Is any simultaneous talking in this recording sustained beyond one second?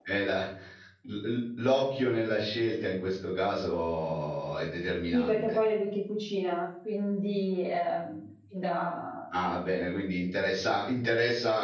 No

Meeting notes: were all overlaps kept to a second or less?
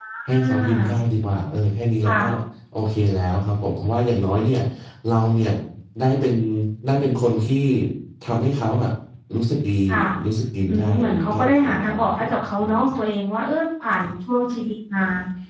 No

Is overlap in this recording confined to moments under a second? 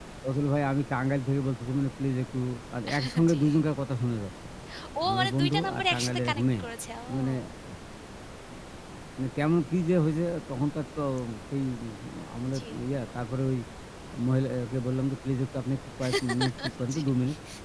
No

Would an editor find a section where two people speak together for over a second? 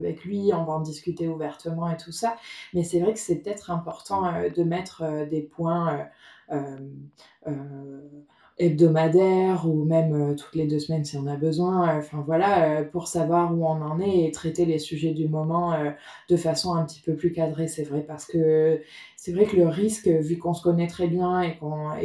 No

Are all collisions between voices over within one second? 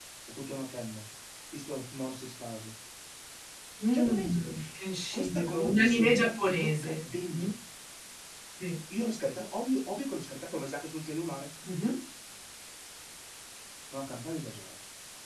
No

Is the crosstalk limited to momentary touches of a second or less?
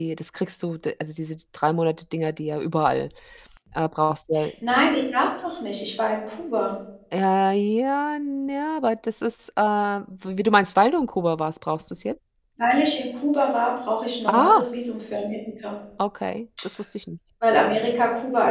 Yes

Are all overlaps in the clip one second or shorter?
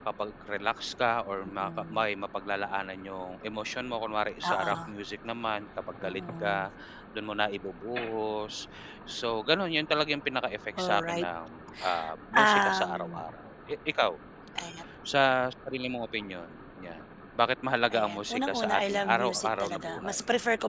No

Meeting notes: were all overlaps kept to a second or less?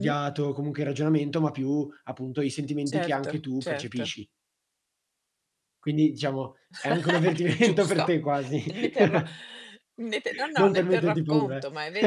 No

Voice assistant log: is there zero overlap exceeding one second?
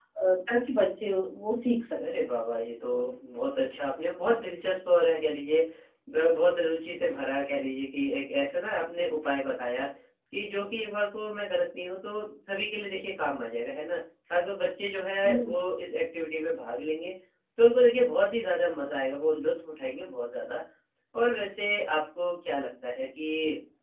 Yes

